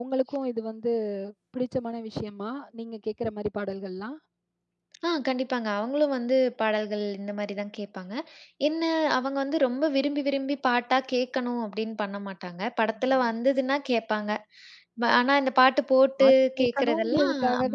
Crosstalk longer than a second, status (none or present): present